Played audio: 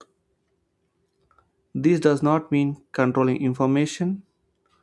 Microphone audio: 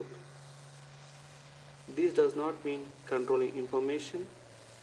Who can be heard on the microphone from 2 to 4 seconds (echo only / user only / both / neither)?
echo only